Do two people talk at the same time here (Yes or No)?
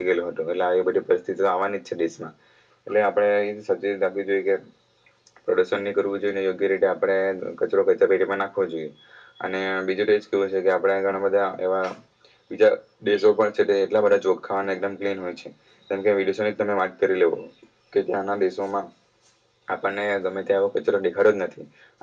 No